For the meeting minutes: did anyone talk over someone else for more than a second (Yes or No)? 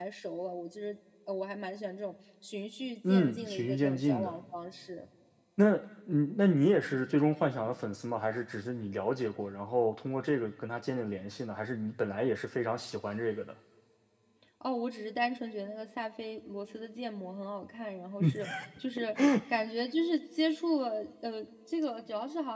Yes